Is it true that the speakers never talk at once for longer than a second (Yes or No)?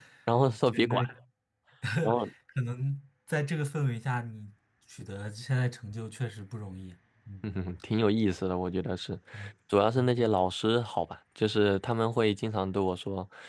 Yes